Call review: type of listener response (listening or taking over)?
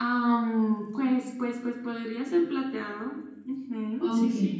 taking over